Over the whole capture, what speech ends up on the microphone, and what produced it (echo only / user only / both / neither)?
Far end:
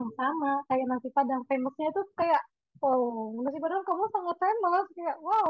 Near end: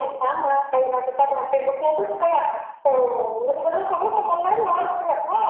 echo only